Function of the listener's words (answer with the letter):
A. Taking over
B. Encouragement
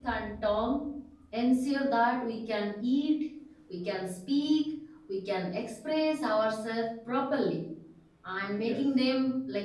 B